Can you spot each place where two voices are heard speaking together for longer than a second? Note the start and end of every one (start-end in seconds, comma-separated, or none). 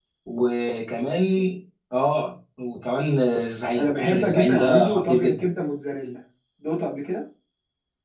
3.8-5.4